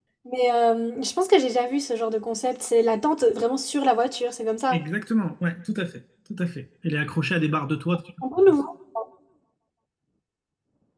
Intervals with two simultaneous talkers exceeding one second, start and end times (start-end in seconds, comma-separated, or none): none